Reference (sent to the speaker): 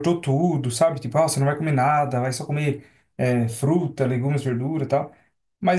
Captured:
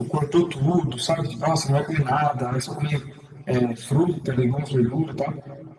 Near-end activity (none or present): none